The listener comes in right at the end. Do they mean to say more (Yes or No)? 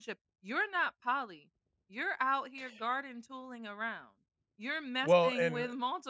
No